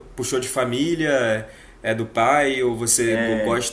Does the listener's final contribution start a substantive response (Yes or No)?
No